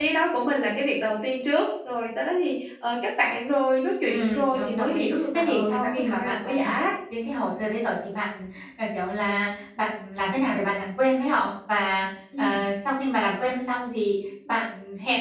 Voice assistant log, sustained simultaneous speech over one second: present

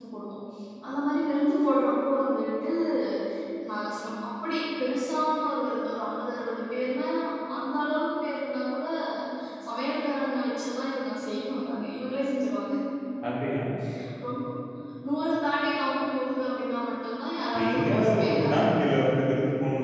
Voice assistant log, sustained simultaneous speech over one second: present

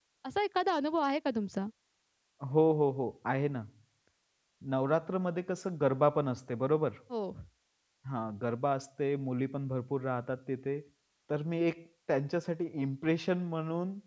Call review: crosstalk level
none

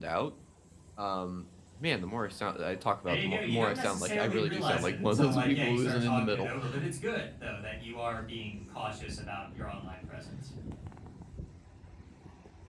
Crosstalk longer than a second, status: present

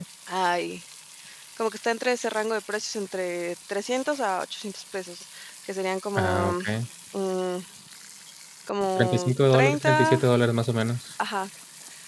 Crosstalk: present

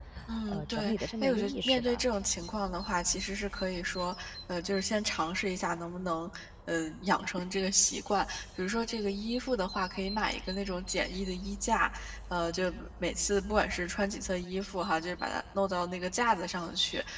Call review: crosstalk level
present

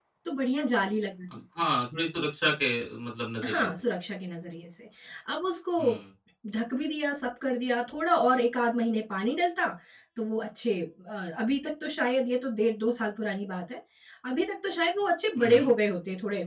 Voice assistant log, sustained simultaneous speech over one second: none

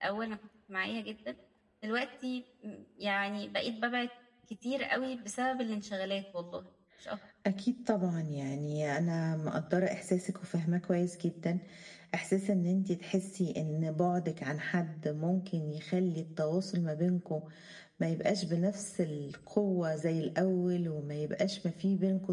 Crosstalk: none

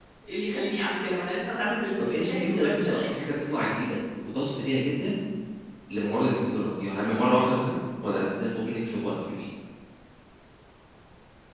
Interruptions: present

